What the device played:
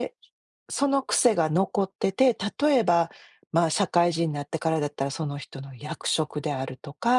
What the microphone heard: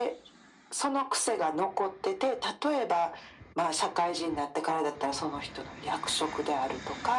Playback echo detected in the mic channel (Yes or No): Yes